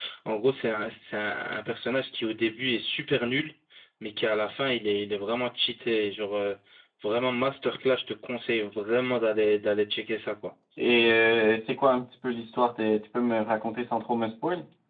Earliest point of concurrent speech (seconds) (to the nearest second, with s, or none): none